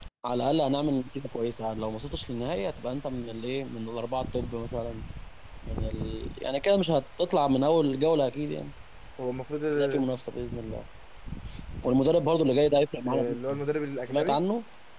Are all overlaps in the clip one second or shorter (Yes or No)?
Yes